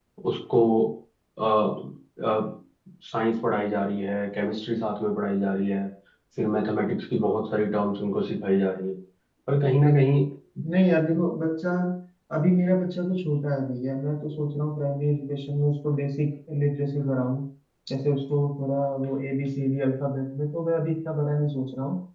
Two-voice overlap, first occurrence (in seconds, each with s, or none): none